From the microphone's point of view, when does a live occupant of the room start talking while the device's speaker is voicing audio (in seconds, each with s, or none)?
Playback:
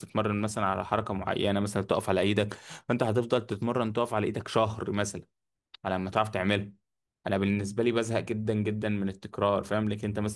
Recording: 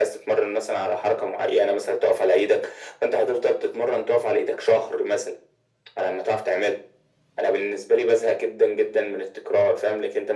none